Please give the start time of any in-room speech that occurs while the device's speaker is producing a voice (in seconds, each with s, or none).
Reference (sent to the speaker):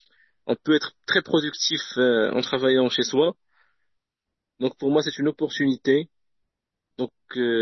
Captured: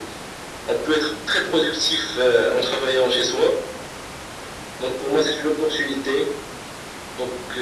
none